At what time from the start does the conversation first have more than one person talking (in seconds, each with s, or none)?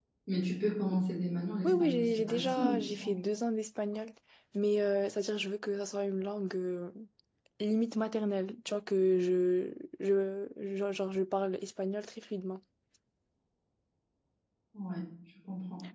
1.6 s